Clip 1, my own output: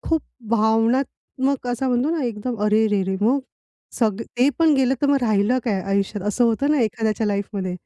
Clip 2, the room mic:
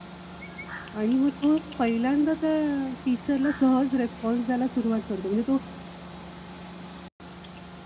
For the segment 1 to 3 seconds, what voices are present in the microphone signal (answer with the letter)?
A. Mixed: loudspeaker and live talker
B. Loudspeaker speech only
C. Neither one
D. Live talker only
D